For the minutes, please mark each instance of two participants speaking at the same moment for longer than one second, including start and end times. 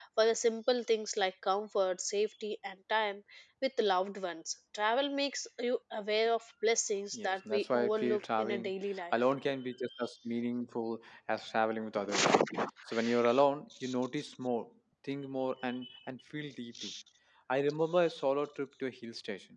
7.1-8.7

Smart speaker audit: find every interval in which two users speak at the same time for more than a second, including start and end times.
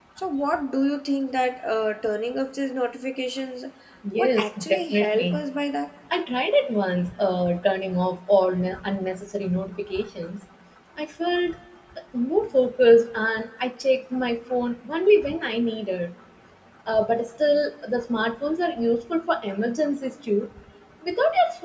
4.2-5.4

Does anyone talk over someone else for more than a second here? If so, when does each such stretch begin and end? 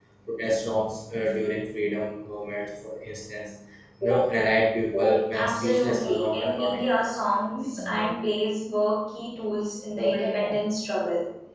5.3-7.0

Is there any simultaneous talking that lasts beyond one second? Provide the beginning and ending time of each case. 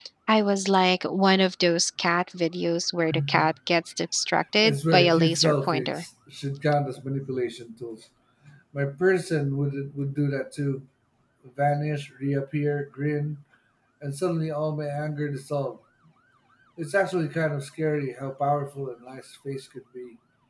4.6-6.0

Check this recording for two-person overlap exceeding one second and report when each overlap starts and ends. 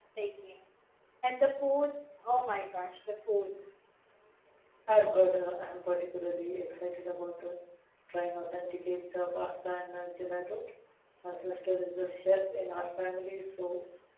none

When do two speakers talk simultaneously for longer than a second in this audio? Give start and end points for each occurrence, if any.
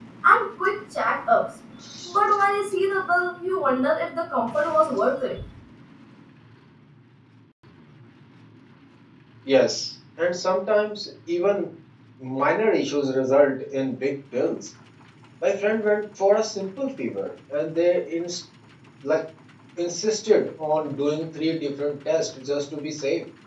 none

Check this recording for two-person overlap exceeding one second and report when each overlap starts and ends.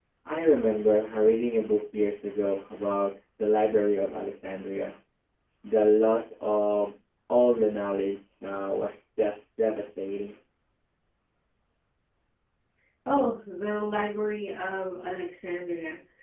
none

